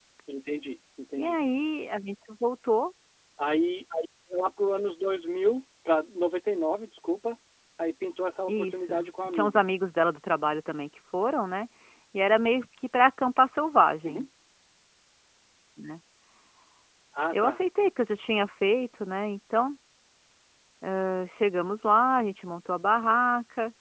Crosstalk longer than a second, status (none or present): none